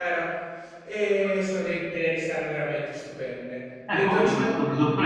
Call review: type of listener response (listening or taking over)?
taking over